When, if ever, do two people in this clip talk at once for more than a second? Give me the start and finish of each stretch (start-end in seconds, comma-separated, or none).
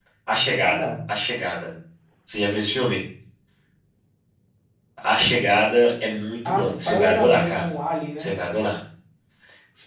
6.4-7.6